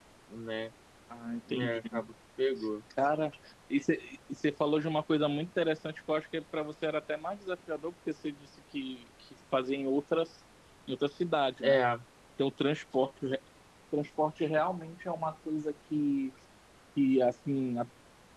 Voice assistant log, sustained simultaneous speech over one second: none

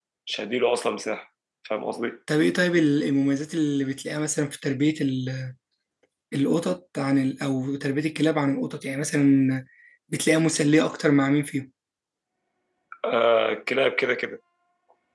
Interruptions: none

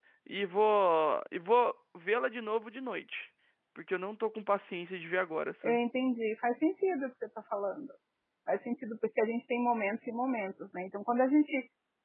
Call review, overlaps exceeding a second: none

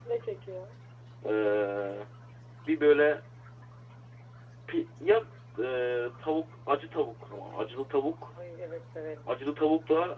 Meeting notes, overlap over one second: none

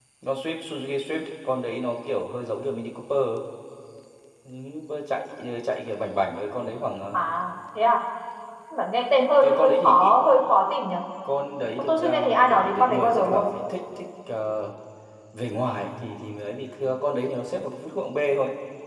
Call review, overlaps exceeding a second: present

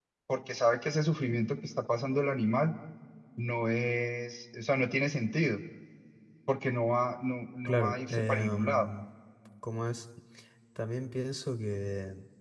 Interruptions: present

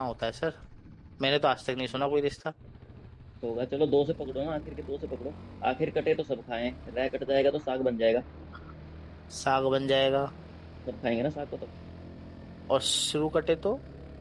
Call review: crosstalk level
none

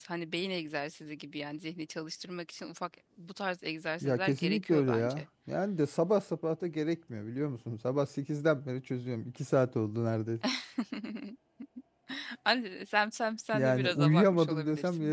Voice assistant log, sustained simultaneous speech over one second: present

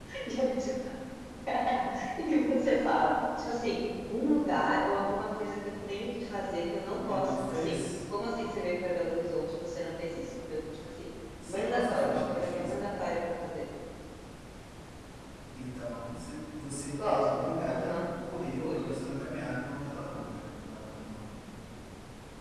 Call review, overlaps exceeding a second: present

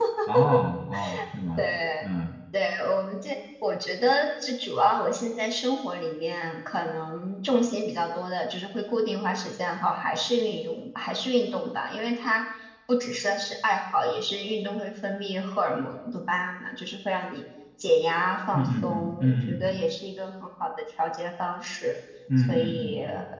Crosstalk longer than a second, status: present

